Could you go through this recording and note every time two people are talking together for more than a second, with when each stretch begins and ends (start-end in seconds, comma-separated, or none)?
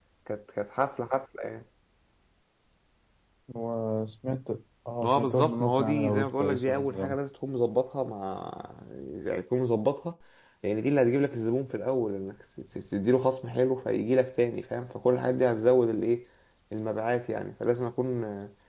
5.0-7.2